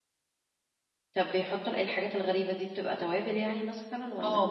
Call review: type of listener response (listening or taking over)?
taking over